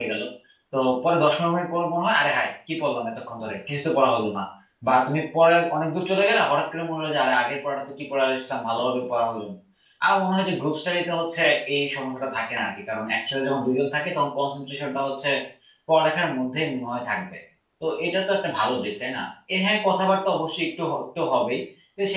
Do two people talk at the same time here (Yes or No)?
No